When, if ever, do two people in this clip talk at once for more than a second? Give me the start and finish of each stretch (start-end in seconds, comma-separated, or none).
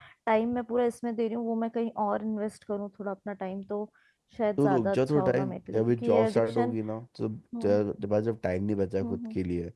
4.6-6.7